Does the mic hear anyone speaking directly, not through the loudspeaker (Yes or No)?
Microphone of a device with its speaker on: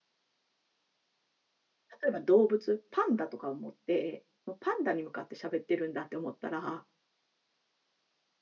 Yes